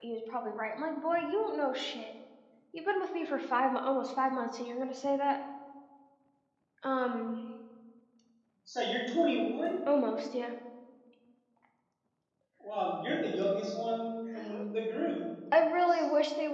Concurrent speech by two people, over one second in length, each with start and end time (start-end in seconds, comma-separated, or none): none